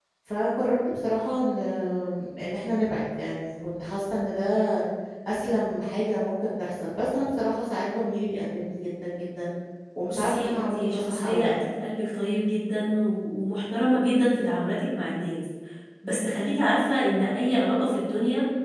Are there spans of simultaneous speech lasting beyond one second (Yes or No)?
Yes